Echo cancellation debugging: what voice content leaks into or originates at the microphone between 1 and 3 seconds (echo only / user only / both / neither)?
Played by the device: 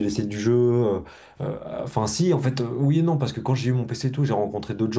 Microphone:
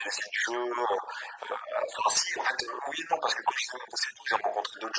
echo only